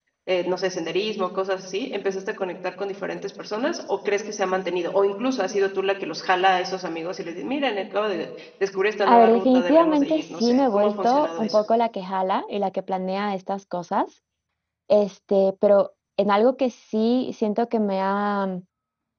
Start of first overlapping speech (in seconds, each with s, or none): 9.1 s